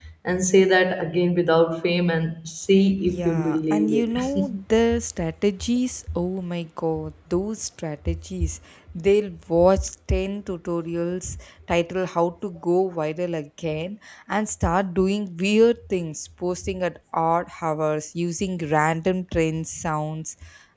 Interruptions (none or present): present